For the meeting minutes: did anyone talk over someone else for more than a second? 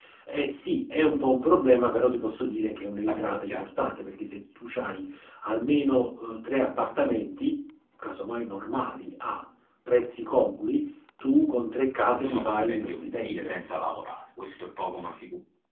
Yes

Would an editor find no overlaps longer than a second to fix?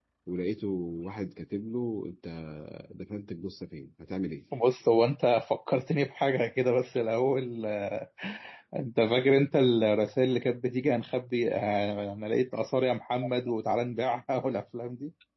Yes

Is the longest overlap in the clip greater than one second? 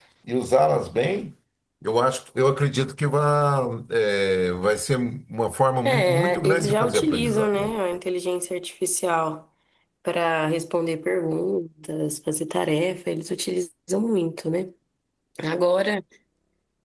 Yes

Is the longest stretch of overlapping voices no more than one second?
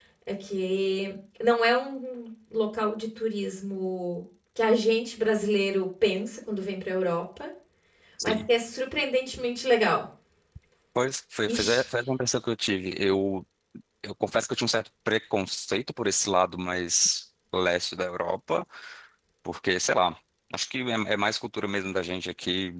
Yes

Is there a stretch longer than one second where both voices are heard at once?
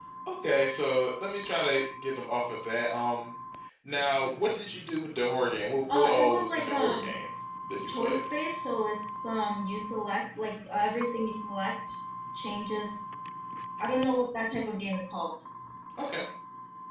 Yes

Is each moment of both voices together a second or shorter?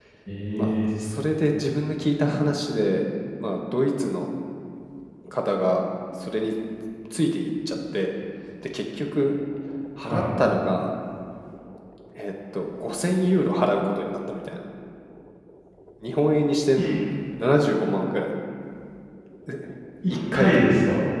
Yes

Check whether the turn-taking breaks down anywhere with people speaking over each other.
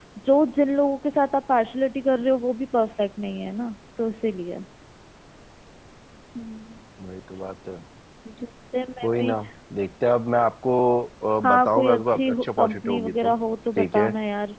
Yes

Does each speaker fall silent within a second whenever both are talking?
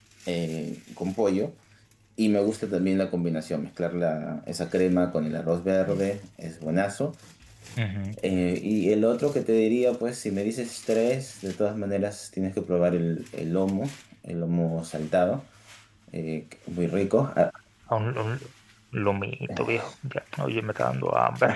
Yes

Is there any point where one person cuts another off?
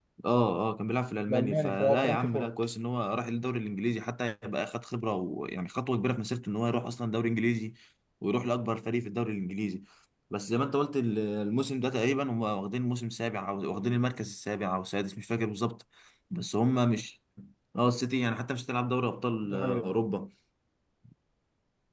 Yes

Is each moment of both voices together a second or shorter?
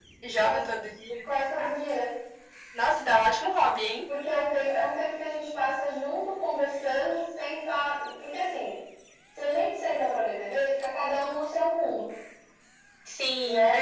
Yes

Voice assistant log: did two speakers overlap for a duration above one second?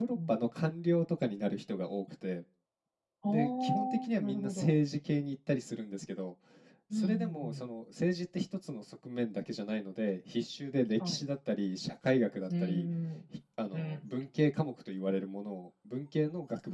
Yes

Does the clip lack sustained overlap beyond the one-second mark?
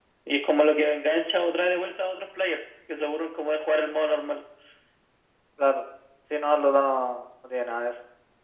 Yes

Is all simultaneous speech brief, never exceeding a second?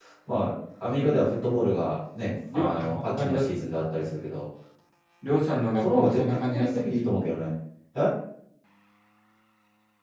No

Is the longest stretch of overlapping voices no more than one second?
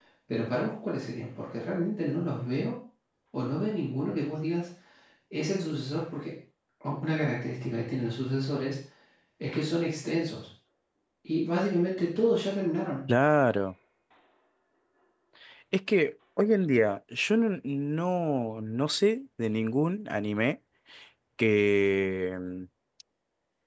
Yes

